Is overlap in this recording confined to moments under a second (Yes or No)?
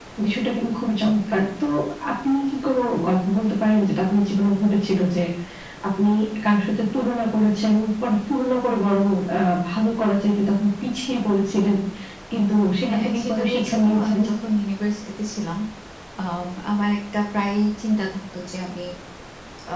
No